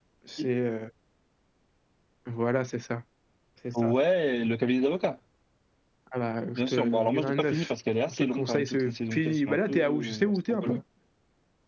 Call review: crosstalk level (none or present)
present